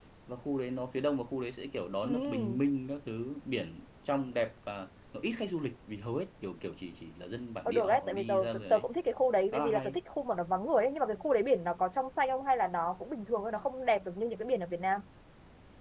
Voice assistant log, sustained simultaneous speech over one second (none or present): present